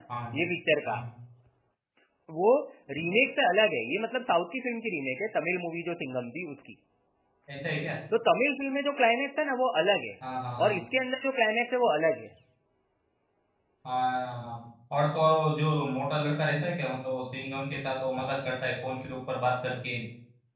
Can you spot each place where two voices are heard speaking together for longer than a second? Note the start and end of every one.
none

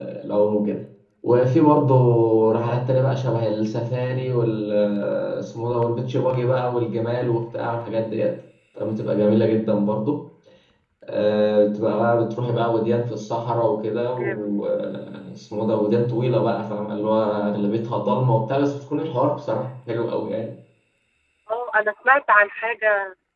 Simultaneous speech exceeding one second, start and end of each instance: none

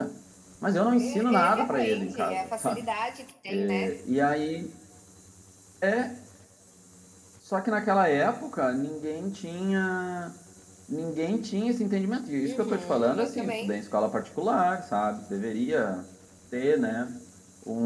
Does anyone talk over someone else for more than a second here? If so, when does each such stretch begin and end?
1.0-2.9, 12.4-13.8

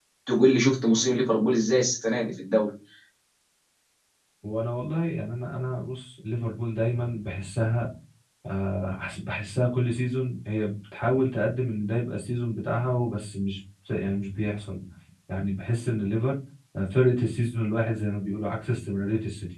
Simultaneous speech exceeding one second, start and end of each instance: none

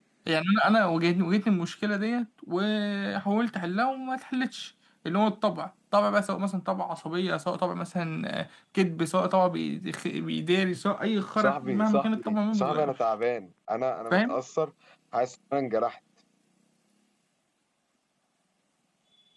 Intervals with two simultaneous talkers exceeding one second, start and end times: 11.4-12.9

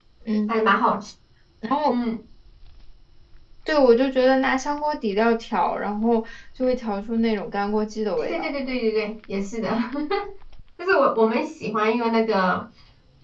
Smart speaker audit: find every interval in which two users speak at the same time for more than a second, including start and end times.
none

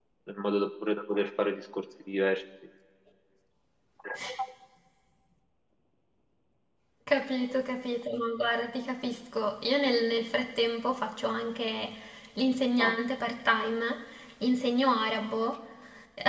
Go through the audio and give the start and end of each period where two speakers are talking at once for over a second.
none

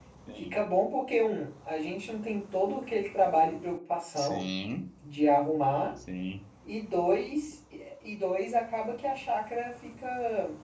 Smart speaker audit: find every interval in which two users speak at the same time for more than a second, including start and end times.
none

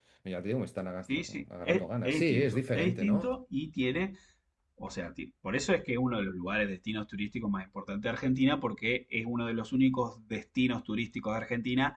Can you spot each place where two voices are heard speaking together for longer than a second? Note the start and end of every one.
1.2-3.3

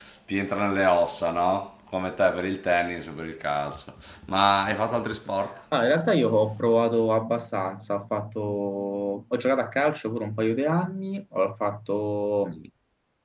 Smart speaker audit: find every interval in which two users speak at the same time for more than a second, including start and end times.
none

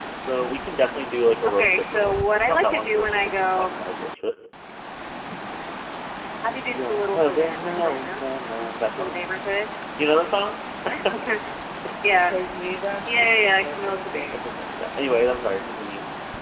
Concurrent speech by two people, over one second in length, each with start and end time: 1.5-3.8, 6.7-8.2, 13.1-14.4

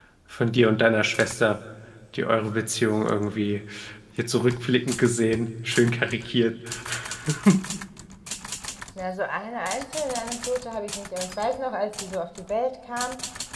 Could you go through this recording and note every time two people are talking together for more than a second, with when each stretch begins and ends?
none

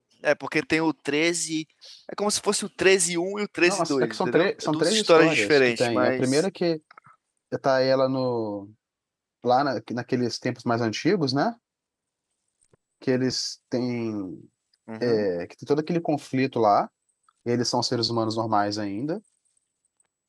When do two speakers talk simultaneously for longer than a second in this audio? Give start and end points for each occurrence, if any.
3.6-6.4

